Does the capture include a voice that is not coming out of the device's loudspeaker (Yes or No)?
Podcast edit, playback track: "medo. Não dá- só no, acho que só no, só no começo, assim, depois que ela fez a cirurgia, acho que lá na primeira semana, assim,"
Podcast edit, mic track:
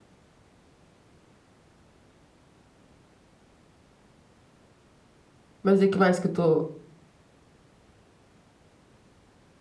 Yes